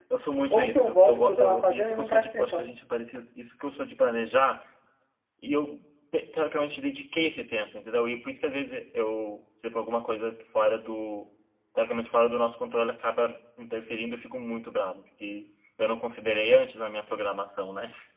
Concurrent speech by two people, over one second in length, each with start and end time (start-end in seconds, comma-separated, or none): 0.5-2.6